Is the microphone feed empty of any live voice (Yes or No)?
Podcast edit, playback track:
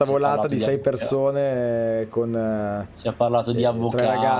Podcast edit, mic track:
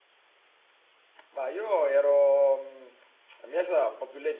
No